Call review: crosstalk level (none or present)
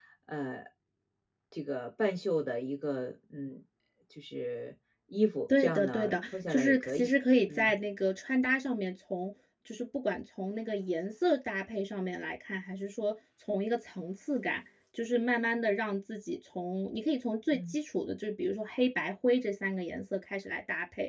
present